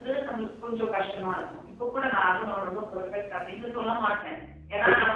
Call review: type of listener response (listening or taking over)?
taking over